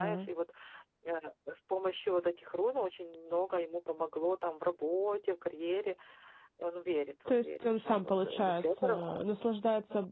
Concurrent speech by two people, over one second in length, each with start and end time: 7.3-9.0

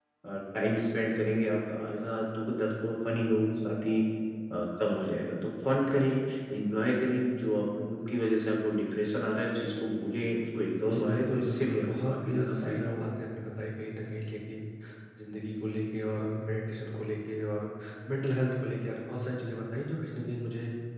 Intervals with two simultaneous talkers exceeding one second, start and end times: 10.9-13.1

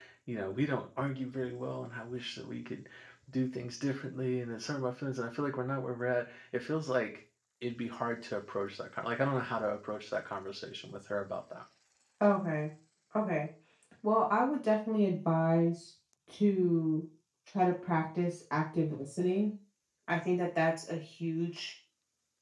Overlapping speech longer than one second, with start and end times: none

